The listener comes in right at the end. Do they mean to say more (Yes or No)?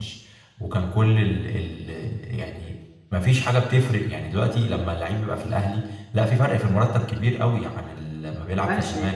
Yes